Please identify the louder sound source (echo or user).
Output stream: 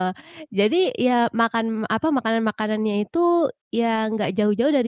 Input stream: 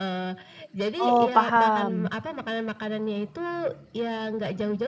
user